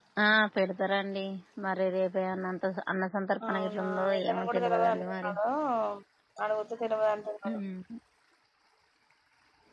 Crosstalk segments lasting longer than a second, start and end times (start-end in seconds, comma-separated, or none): 3.5-5.3